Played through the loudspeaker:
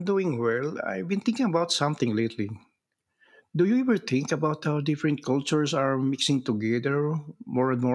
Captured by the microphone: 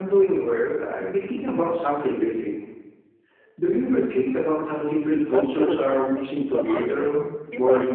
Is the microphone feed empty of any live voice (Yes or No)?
No